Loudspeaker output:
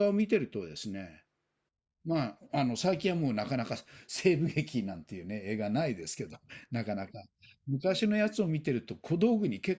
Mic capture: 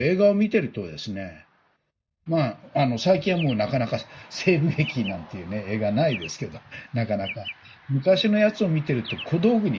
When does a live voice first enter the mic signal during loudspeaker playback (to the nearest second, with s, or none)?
none